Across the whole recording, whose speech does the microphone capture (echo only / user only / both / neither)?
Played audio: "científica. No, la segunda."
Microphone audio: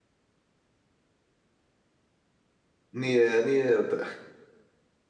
user only